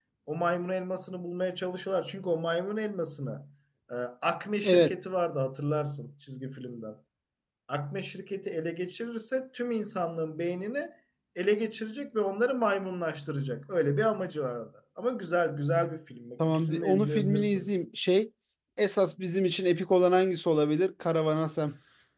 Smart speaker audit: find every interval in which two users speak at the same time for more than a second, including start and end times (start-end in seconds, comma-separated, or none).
16.5-17.7